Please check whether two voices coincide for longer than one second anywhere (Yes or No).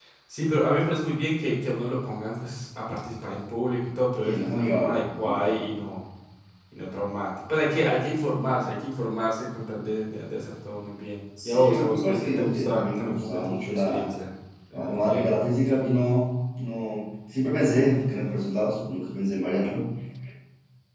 Yes